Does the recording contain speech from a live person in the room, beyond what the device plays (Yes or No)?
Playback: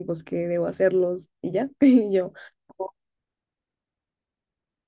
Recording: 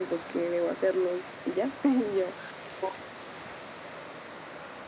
No